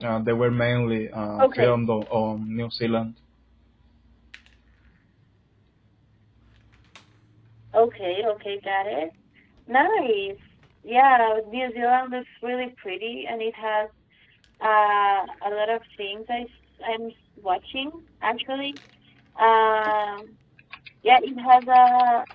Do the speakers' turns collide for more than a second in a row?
No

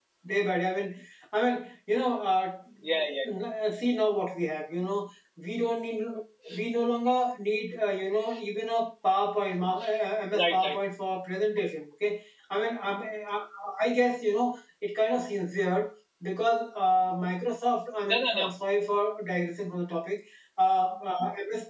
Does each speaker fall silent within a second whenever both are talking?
Yes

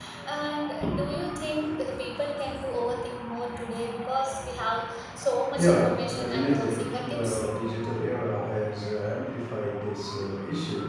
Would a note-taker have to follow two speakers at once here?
Yes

